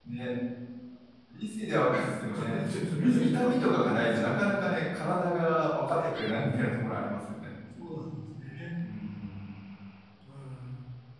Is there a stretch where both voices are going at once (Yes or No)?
Yes